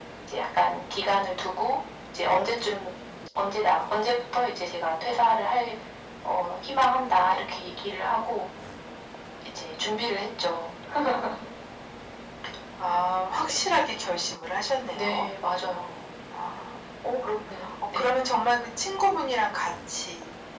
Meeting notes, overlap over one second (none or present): none